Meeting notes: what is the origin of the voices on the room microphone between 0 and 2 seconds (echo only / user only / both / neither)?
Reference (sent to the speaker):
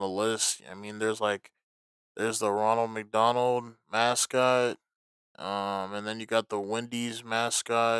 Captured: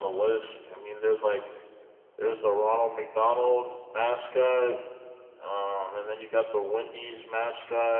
echo only